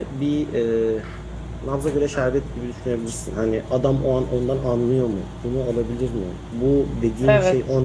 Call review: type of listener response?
listening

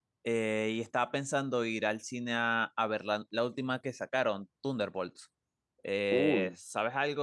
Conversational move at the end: listening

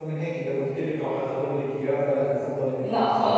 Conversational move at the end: taking over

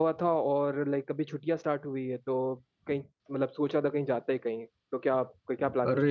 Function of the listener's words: taking over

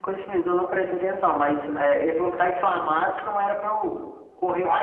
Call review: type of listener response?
taking over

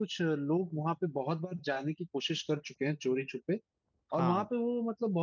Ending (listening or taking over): listening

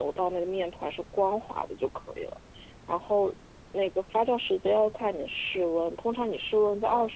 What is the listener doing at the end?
listening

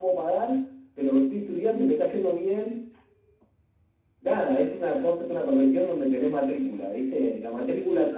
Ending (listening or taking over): listening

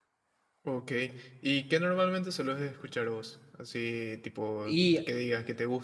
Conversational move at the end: listening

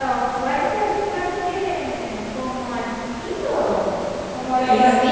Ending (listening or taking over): taking over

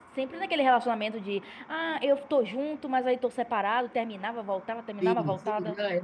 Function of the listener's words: taking over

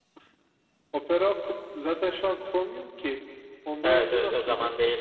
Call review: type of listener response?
taking over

